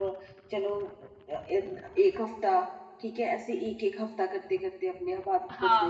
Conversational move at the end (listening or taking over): taking over